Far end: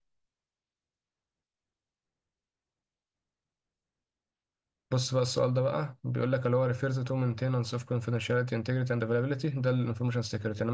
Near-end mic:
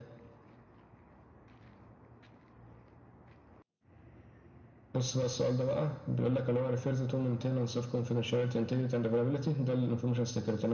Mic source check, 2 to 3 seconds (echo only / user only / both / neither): neither